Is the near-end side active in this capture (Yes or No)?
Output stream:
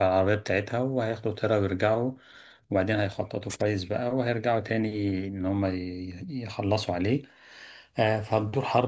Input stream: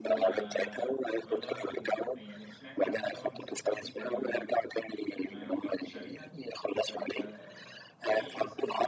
Yes